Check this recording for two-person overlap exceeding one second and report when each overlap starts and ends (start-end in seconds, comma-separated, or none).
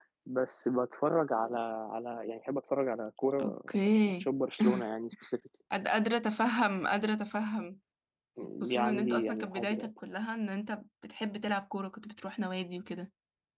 8.7-9.9